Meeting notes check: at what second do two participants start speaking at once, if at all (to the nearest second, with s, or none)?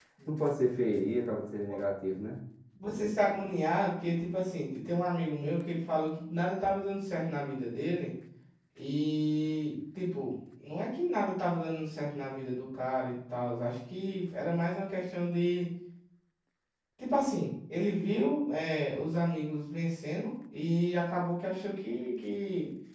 none